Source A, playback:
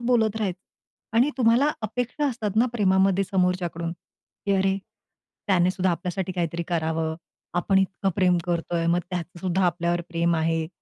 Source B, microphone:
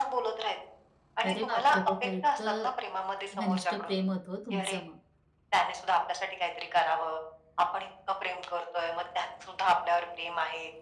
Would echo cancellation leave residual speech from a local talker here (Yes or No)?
Yes